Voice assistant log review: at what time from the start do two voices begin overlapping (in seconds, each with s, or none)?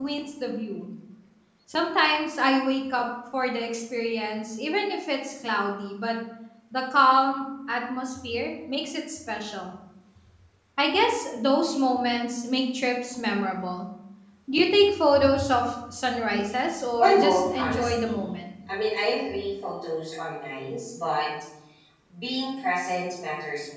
17.0 s